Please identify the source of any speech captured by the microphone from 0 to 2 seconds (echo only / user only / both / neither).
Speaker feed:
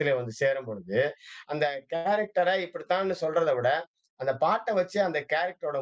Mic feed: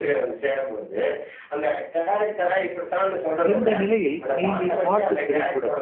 echo only